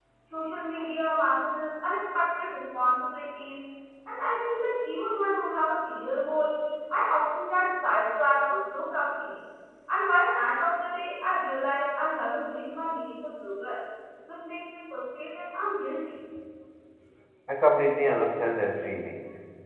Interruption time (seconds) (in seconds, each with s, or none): none